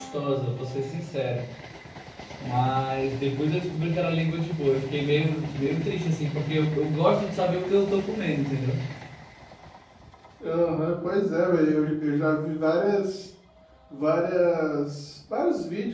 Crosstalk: none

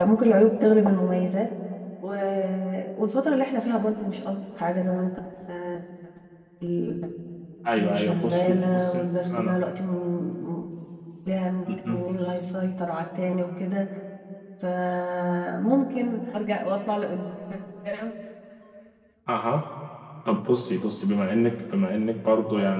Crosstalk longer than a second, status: present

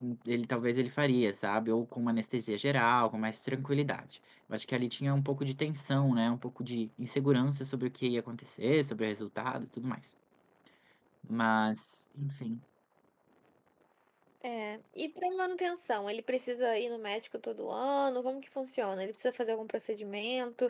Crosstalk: none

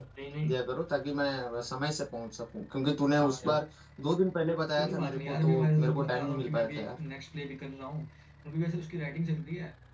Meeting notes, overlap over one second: present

